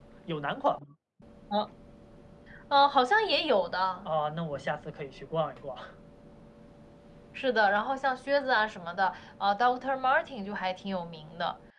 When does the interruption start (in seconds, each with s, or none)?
none